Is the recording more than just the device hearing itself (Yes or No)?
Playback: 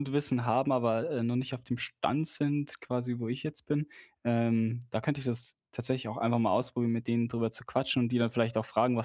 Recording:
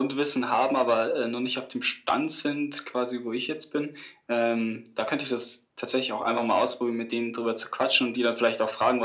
No